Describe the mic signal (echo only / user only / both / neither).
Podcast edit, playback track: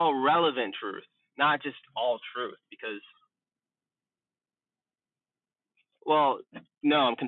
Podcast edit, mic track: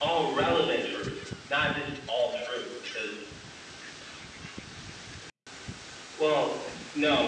echo only